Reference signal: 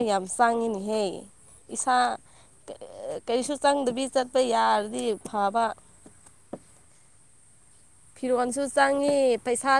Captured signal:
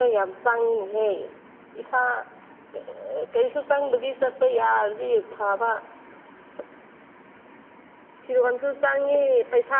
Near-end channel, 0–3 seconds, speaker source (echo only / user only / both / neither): echo only